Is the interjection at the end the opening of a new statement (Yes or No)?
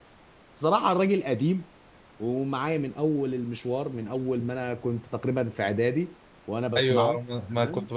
Yes